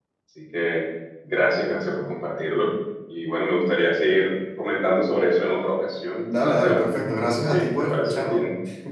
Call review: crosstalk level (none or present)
present